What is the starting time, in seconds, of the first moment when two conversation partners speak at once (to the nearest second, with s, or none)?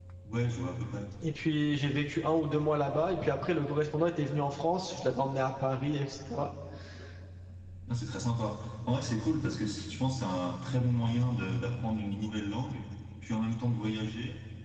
none